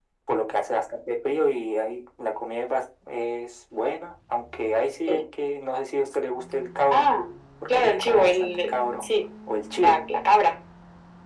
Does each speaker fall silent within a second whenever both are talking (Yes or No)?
No